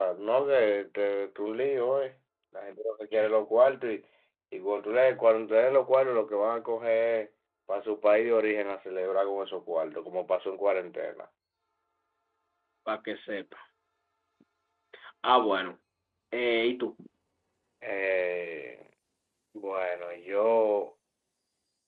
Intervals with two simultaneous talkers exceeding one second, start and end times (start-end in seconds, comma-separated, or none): none